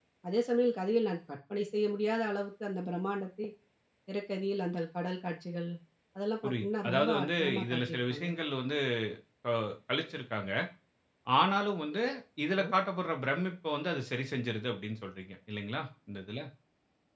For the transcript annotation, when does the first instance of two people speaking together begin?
6 s

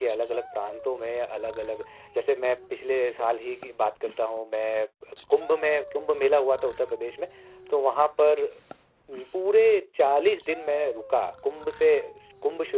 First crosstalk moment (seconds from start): none

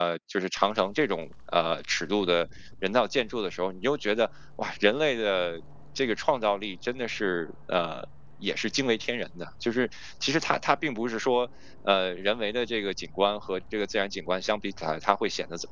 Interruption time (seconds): none

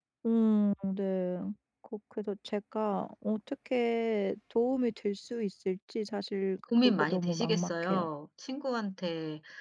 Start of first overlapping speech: 7 s

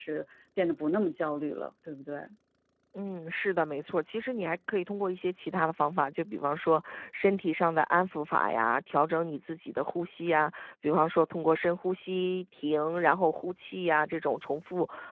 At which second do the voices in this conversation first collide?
none

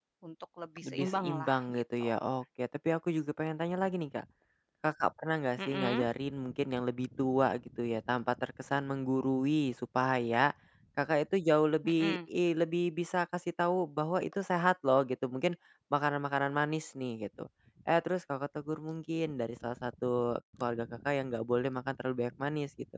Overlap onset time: 1 s

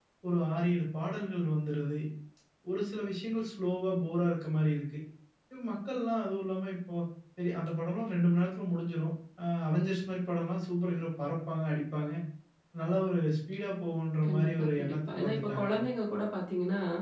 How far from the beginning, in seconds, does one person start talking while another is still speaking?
14 s

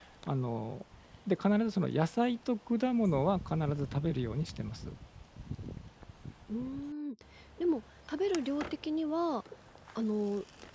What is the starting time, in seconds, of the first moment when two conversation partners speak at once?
none

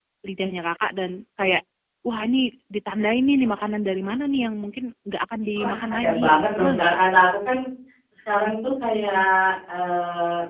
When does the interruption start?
6 s

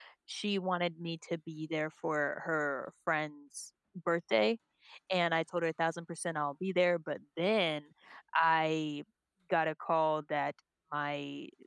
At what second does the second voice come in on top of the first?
none

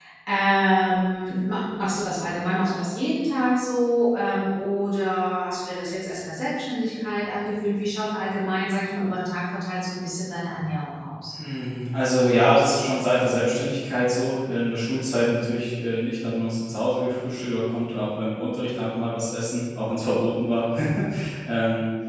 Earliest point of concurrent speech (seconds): none

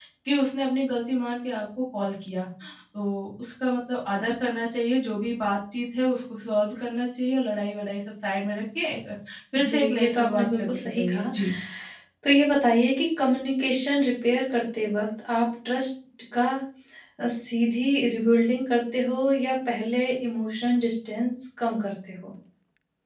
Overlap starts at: 10 s

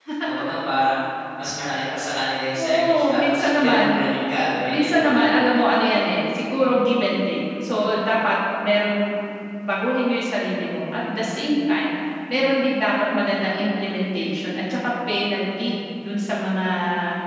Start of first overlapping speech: 3 s

